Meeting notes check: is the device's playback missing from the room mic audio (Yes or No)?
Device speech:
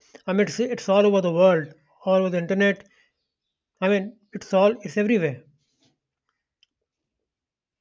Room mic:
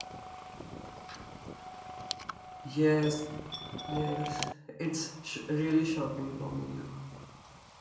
Yes